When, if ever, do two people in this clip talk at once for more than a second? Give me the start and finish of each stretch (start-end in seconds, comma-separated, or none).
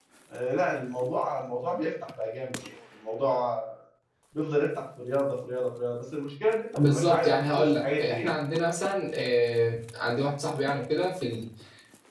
6.8-8.3